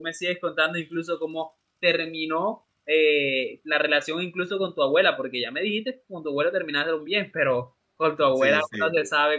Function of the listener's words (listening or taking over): listening